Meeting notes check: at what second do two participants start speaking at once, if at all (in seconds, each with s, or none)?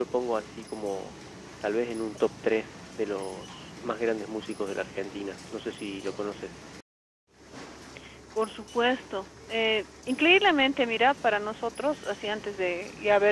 none